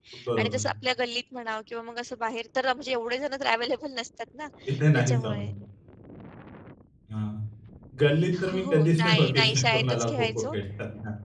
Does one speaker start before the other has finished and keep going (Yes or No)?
Yes